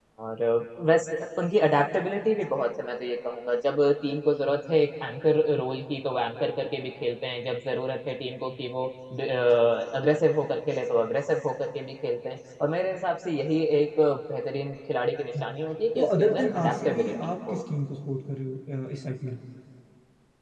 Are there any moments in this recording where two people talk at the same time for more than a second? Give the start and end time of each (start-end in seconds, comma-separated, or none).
15.9-17.6